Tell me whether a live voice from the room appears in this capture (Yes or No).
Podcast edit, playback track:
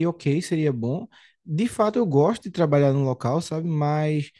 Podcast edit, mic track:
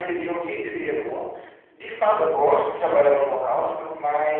No